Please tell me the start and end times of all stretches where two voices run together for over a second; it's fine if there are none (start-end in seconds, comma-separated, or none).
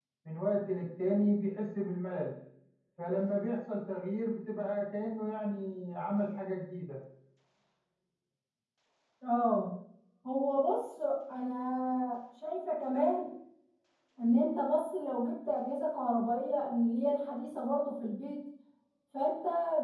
none